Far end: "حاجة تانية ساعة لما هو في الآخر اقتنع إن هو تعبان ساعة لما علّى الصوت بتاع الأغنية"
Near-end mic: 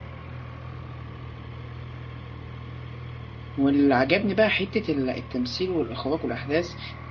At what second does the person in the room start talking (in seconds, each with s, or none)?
3.6 s